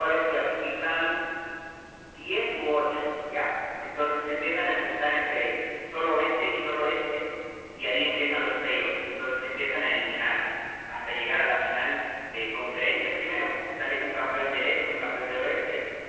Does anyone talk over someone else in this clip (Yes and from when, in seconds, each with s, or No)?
No